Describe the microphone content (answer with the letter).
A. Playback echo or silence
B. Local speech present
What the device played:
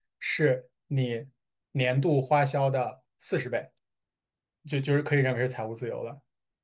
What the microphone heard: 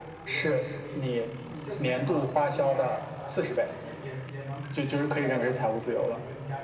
B